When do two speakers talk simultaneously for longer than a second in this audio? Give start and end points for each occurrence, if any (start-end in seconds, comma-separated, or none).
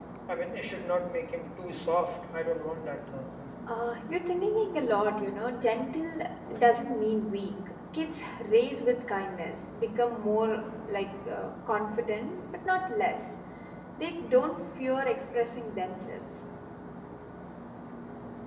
none